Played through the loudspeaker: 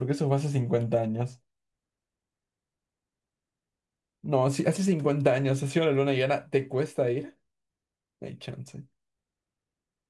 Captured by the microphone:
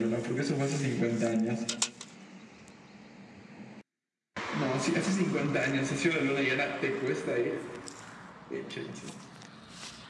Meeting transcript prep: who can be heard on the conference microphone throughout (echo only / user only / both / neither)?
echo only